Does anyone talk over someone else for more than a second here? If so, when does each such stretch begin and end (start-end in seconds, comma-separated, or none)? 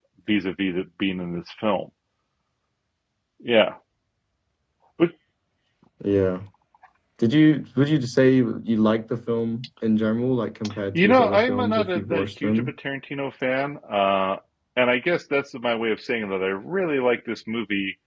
10.9-12.7